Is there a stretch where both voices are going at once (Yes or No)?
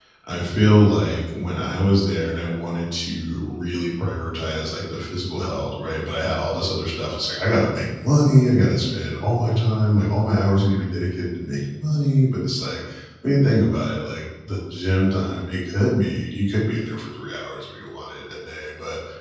No